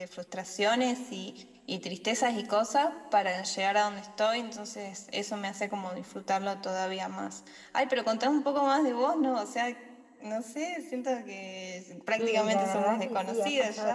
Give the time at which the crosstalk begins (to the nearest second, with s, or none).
12 s